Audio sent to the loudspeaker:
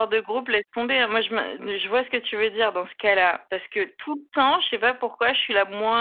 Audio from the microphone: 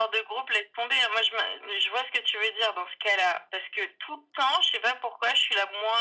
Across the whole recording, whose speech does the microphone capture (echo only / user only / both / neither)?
echo only